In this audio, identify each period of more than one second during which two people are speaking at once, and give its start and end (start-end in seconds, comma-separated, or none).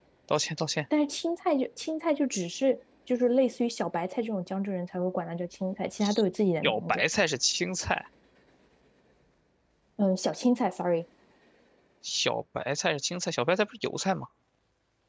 none